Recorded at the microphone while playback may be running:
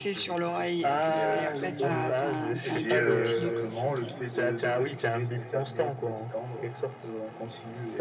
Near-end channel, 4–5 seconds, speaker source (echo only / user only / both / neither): both